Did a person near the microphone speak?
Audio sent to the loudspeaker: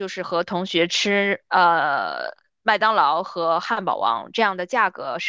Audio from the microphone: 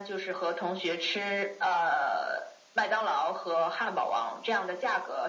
No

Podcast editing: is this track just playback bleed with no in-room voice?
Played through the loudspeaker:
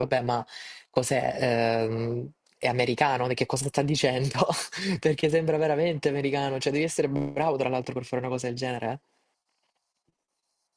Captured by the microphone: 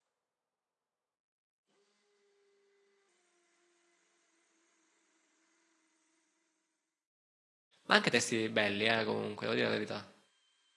No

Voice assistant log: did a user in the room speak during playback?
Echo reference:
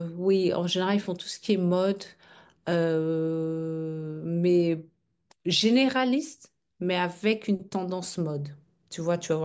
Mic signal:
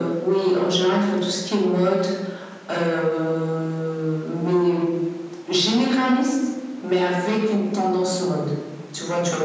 No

